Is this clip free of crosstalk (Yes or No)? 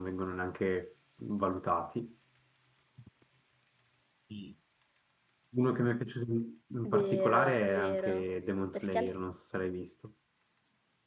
No